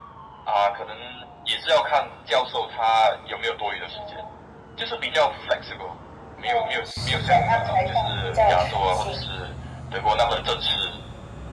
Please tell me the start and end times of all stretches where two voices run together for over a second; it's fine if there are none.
6.4-9.2

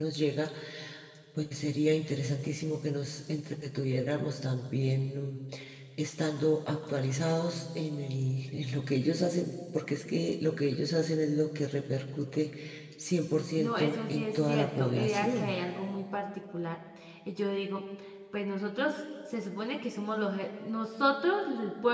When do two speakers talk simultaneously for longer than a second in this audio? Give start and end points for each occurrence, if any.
13.6-15.6

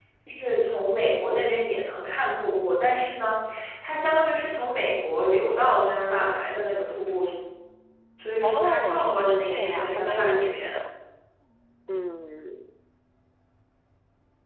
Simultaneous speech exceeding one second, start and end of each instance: 8.4-10.8

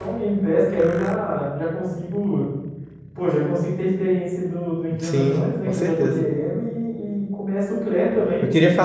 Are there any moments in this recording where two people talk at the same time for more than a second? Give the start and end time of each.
5.0-6.2

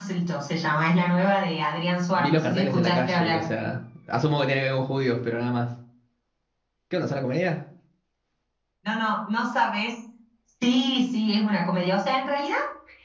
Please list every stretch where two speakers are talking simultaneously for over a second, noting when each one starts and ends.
2.1-3.5

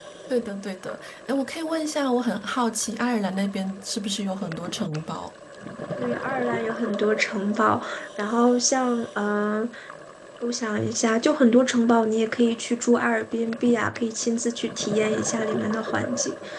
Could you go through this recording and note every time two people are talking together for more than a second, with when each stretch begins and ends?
none

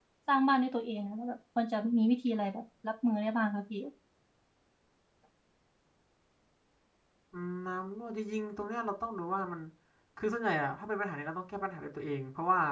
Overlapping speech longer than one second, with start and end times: none

